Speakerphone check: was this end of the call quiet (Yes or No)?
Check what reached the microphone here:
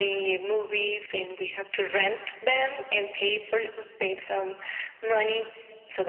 Yes